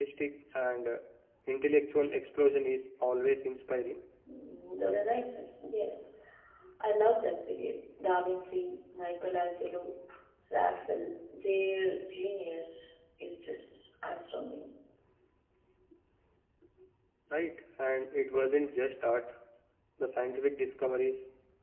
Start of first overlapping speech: none

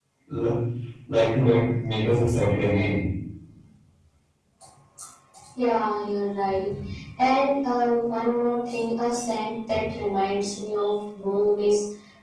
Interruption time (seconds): none

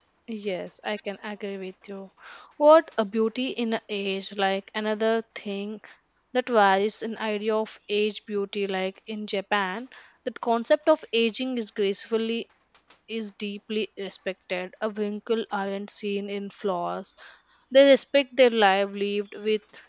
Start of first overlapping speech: none

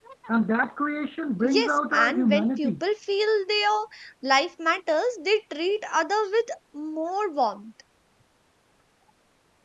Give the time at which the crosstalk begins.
1 s

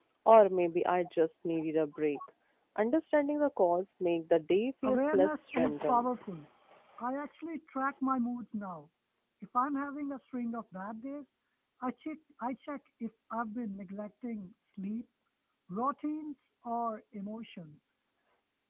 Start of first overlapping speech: 5 s

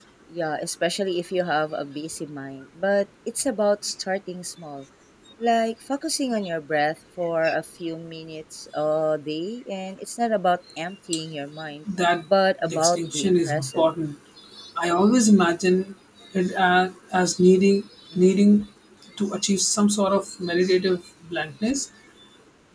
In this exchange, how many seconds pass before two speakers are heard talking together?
13 s

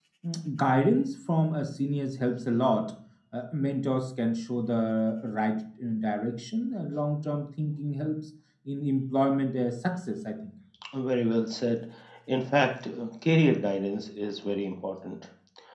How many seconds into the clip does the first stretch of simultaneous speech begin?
none

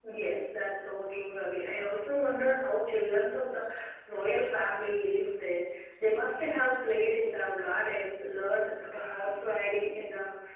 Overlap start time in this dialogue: none

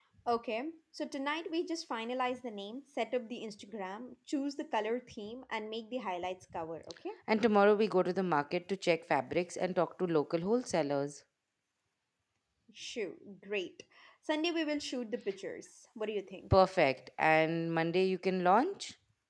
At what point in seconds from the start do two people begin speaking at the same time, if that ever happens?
none

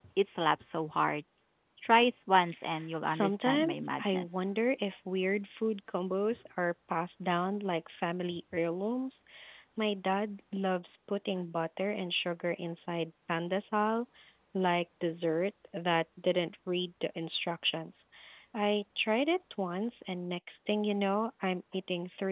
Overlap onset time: 3 s

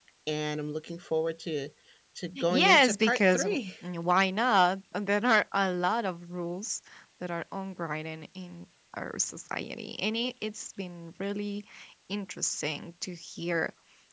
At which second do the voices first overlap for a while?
2 s

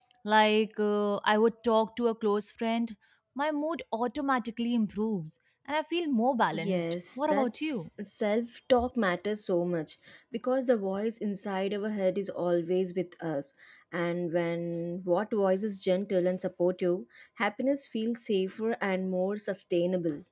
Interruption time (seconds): 7 s

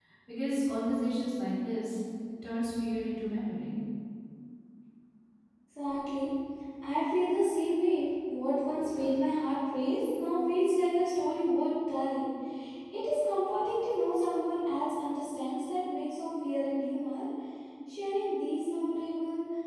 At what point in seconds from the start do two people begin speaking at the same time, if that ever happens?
none

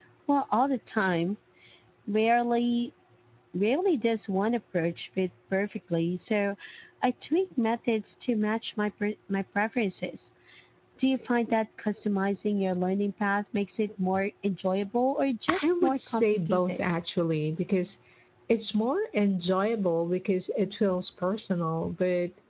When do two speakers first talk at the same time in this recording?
15 s

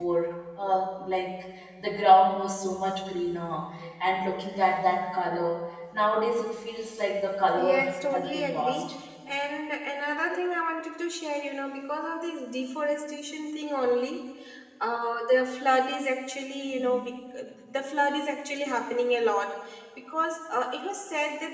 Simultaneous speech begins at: 8 s

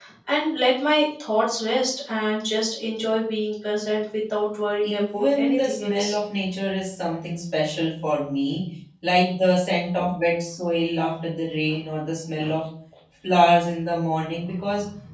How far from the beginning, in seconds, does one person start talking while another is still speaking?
5 s

